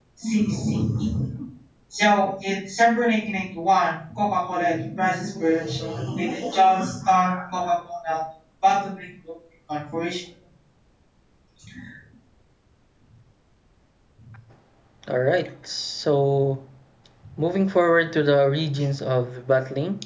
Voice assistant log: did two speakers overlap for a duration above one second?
No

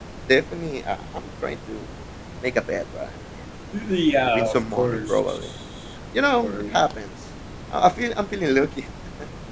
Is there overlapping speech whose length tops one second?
Yes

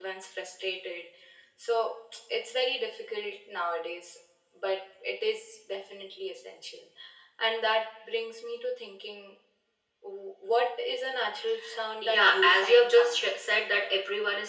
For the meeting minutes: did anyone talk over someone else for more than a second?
Yes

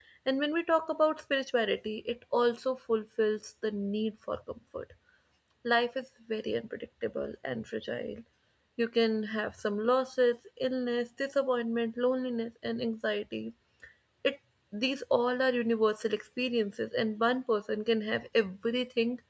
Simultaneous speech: No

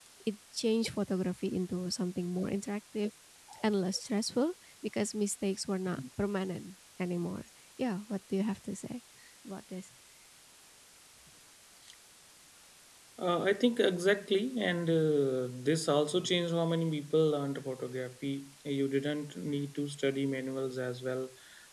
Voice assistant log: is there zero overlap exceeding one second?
Yes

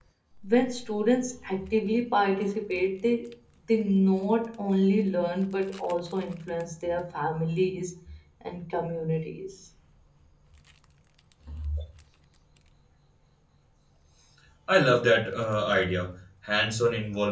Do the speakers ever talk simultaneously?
No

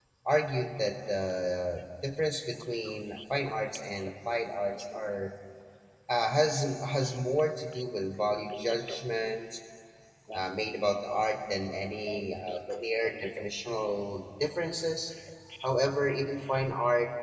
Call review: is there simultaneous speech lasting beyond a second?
Yes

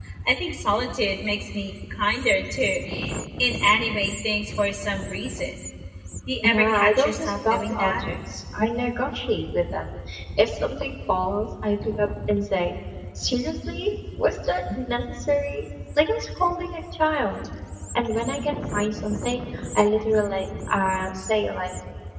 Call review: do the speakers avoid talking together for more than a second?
No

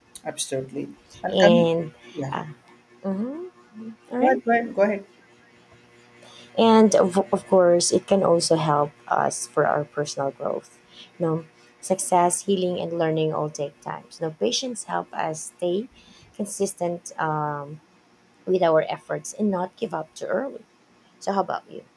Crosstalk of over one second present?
No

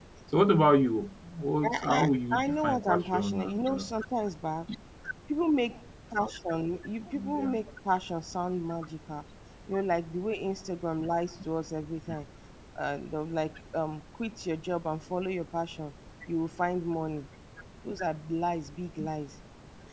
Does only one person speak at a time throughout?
No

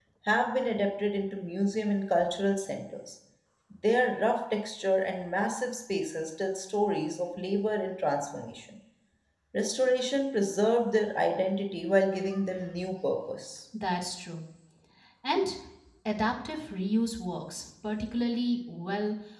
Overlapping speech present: No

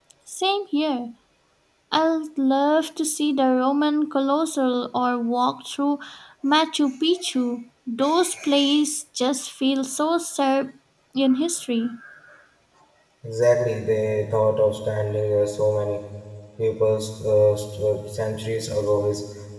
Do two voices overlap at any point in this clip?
No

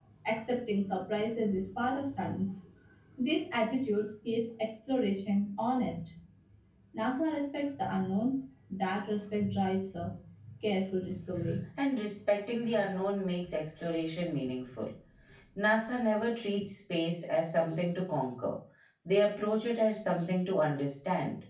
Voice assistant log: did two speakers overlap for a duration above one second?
No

